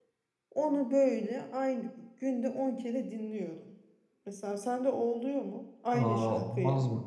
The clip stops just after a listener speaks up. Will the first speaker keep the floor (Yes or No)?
No